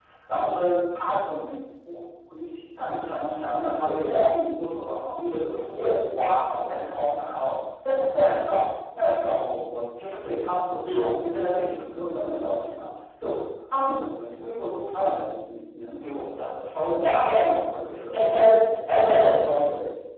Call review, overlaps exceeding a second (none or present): none